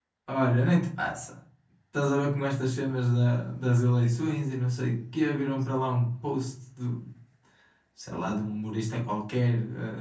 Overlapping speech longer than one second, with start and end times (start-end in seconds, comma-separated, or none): none